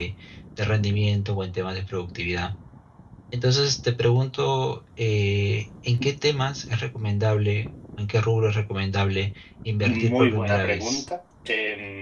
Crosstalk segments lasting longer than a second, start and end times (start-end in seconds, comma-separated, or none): 9.8-11.1